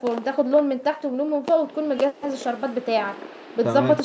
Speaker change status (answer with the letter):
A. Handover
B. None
B